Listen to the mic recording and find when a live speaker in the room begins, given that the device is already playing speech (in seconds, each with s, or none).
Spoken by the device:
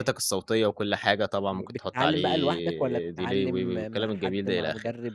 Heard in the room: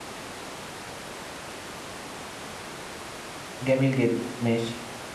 3.6 s